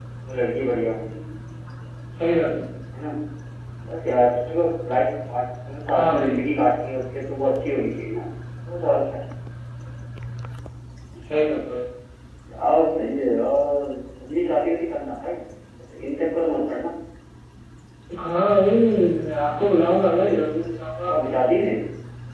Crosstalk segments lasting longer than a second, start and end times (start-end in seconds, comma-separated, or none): none